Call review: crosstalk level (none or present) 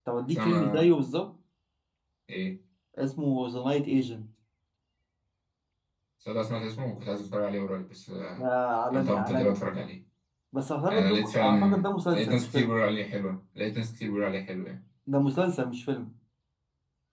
present